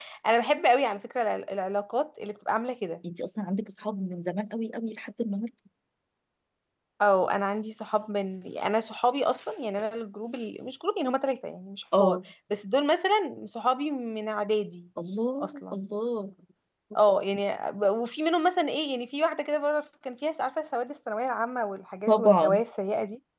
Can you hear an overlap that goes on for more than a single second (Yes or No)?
No